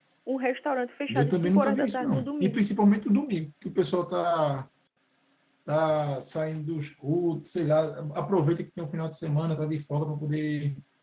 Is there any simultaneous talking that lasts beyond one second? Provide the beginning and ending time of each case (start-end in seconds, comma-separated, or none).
1.1-2.6